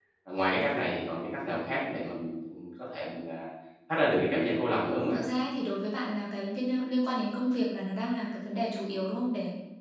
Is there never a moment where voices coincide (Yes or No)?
Yes